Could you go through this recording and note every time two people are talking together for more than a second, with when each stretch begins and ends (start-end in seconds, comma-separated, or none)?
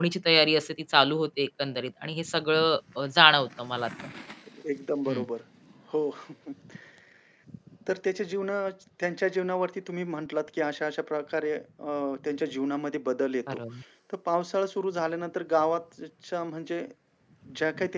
none